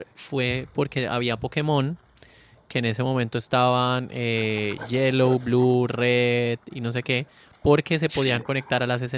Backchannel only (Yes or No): Yes